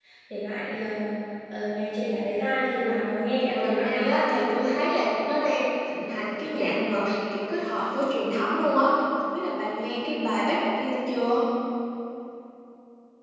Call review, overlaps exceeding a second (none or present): present